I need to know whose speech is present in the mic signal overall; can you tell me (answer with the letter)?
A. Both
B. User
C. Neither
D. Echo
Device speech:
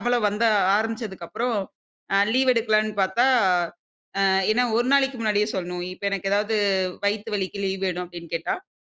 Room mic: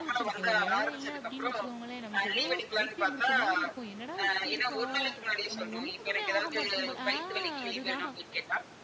A